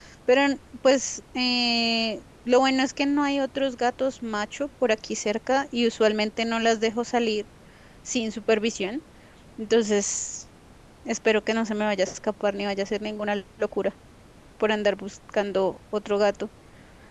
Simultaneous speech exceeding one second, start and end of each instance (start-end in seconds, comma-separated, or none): none